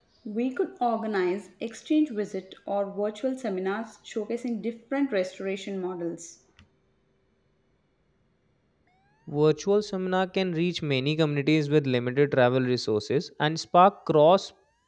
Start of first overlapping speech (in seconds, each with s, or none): none